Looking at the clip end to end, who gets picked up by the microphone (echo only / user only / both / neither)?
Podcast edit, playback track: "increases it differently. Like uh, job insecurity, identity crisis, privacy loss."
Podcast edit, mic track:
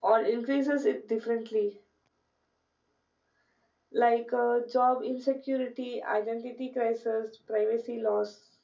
echo only